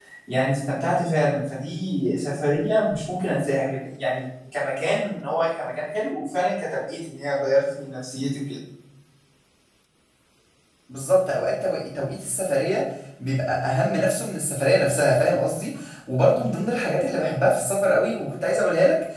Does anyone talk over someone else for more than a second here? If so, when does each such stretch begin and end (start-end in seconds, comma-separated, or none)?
none